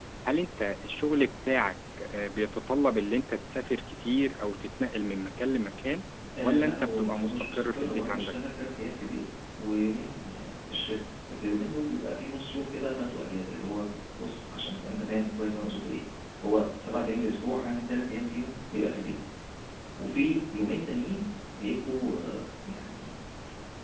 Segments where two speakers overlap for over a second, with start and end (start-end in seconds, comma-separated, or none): 6.4-8.4